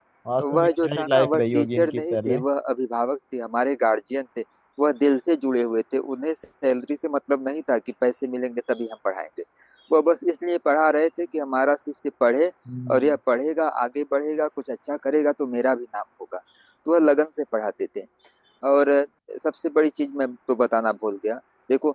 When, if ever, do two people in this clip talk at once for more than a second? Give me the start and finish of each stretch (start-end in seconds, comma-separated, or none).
0.6-2.4